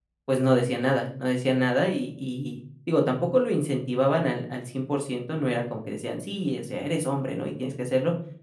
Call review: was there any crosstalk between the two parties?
No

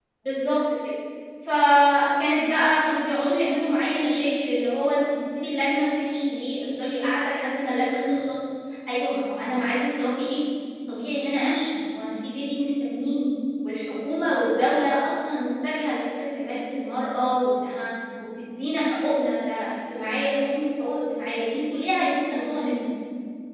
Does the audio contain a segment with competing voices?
No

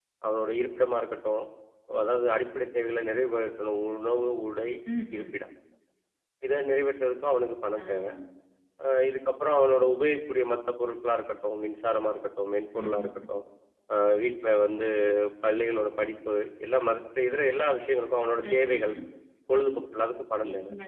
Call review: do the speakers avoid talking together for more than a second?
Yes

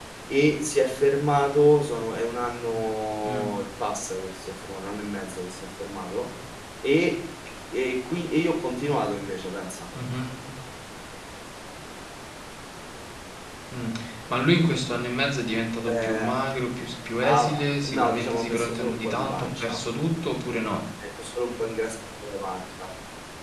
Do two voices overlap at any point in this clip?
Yes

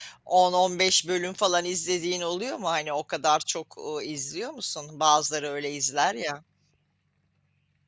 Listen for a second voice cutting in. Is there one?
No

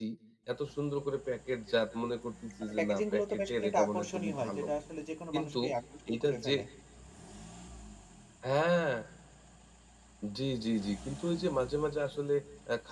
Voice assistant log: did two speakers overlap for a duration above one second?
Yes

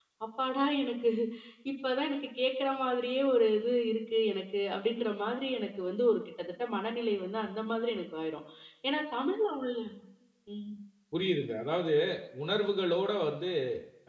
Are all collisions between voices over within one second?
Yes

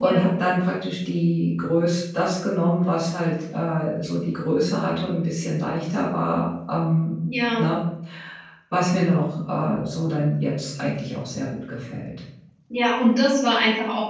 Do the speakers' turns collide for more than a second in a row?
No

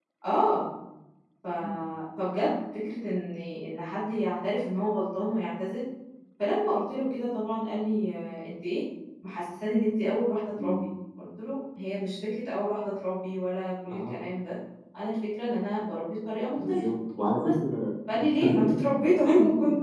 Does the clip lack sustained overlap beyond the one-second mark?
Yes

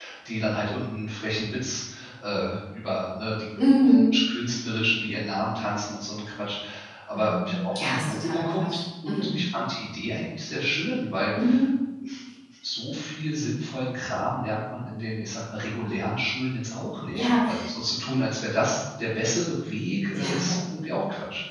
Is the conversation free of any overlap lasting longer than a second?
No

